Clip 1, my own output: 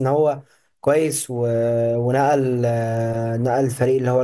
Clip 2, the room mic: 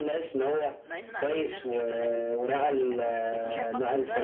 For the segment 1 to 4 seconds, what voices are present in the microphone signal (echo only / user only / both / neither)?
both